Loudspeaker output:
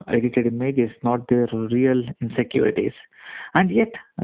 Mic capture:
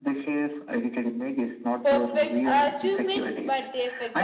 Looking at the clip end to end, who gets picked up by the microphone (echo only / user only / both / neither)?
both